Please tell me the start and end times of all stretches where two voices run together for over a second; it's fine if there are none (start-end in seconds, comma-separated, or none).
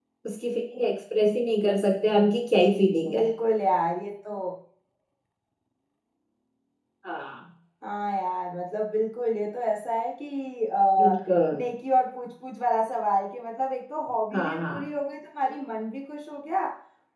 none